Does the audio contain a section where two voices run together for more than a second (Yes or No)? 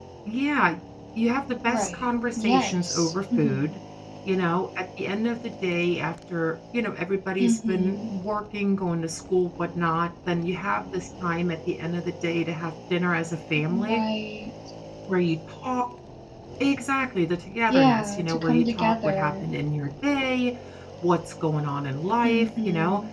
Yes